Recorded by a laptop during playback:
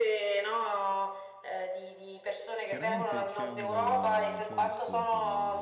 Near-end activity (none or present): present